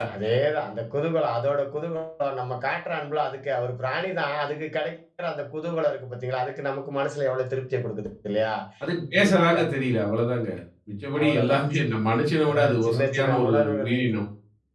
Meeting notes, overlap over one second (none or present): present